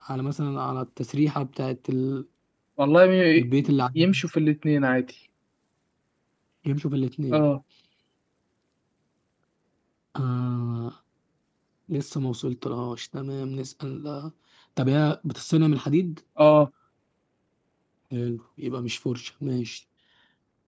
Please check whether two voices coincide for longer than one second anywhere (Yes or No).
No